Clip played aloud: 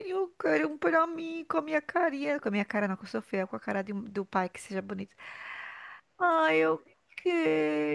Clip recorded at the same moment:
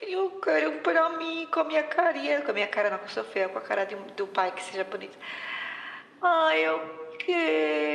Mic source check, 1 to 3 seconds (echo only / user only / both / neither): echo only